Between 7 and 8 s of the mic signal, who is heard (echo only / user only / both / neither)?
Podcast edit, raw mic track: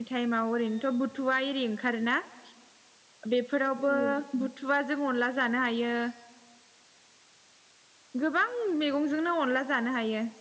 neither